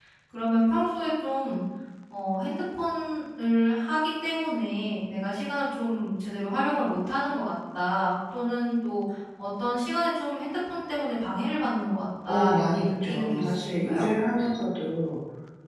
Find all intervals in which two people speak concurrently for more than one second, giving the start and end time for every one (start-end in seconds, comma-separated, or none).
12.3-14.1